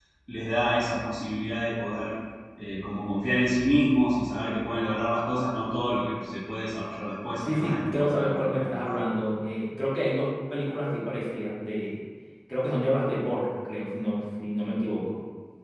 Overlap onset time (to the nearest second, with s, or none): 7 s